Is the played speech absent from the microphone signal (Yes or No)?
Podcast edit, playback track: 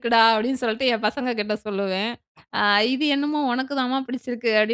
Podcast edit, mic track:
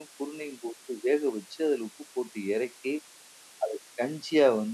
Yes